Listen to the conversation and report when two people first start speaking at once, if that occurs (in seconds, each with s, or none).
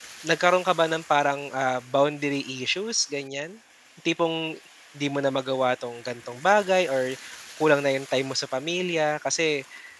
none